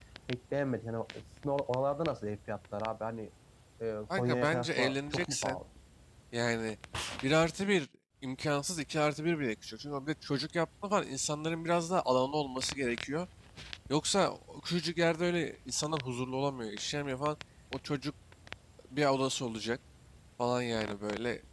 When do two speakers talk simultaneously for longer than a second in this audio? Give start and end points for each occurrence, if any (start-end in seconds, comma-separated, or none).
4.2-5.6